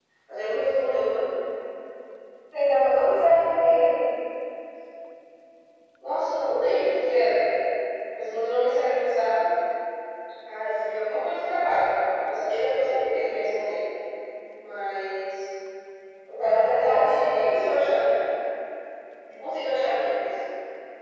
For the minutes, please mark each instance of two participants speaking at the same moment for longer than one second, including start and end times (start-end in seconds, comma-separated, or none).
16.4-17.7